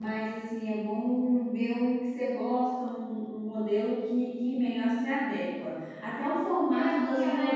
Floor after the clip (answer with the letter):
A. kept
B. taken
B